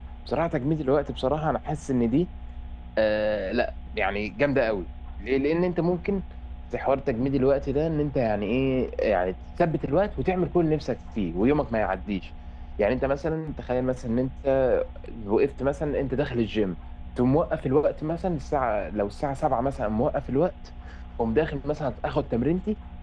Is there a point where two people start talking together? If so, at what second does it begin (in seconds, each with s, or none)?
none